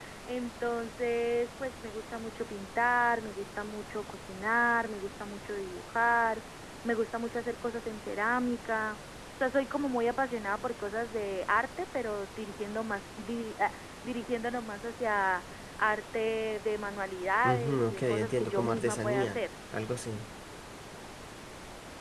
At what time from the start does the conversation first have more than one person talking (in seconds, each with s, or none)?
17.4 s